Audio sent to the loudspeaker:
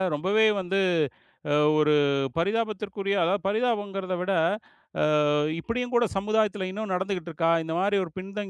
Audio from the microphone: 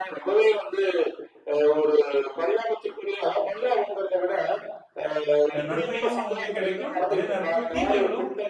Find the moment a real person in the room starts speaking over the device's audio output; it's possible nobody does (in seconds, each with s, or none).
5.6 s